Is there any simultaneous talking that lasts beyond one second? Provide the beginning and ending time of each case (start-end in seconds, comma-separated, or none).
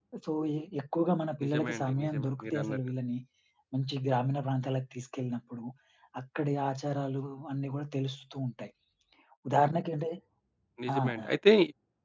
1.4-2.8